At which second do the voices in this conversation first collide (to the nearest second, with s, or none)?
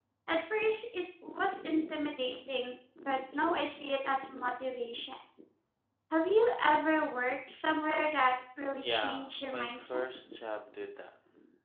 9 s